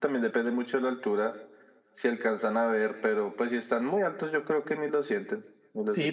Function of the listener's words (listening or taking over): taking over